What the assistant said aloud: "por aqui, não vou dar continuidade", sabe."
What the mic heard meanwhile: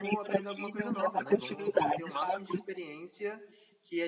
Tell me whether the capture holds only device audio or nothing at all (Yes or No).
No